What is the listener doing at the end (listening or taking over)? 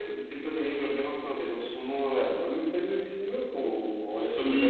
taking over